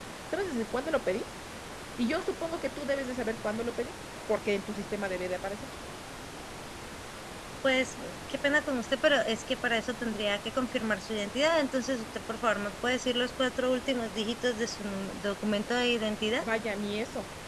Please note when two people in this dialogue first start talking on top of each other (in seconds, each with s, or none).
none